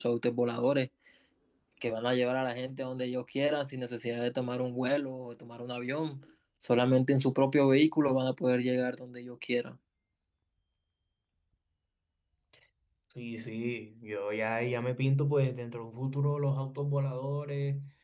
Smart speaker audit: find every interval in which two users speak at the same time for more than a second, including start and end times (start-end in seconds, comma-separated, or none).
none